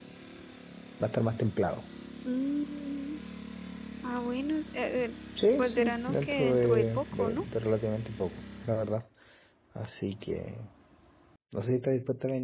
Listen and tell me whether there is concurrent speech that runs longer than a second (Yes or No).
Yes